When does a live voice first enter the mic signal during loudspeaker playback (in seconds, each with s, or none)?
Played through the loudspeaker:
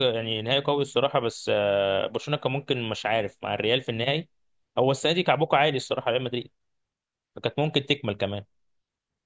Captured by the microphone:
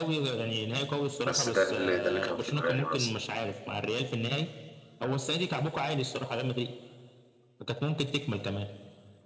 1.2 s